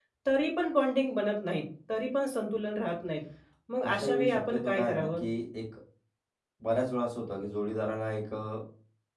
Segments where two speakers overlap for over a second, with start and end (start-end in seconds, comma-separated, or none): 3.9-5.2